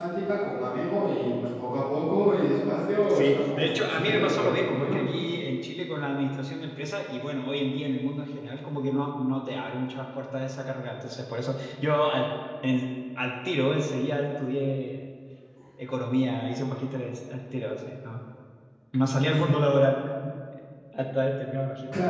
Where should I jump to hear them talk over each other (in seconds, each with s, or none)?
3.1 s